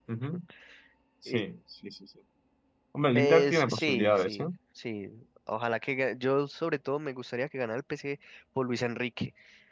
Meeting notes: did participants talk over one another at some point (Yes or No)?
Yes